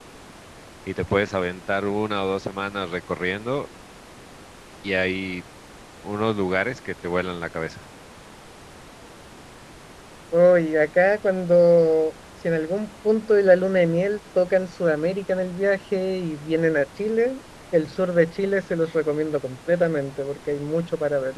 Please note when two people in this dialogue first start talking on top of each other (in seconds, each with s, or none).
none